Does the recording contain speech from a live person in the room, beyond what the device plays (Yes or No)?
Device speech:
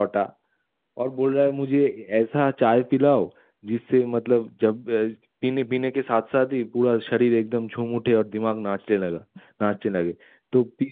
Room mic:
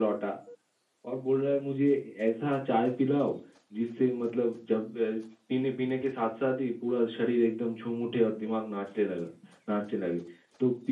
No